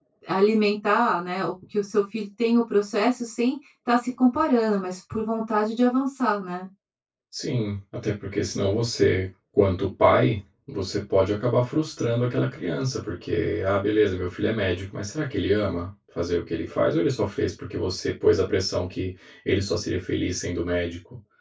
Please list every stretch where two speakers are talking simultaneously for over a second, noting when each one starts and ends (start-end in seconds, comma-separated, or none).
none